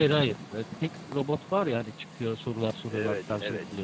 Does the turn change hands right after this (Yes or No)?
Yes